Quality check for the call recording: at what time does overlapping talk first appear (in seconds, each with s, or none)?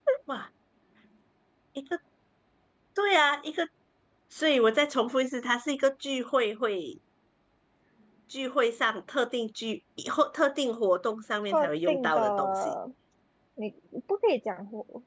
11.5 s